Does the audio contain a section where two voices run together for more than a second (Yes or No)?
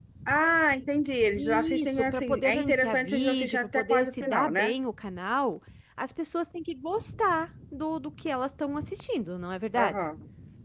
Yes